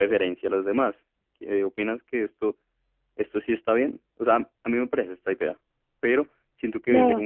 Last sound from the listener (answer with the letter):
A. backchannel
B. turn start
A